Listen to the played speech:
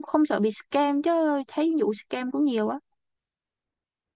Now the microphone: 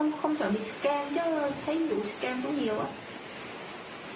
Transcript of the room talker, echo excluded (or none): none